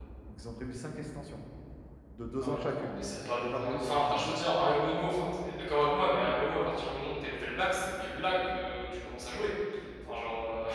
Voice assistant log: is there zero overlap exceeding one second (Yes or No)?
No